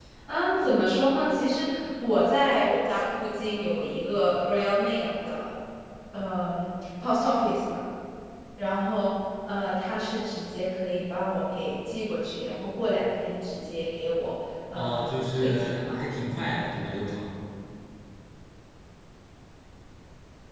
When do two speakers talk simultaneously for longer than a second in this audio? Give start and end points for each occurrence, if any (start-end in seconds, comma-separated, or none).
14.7-16.0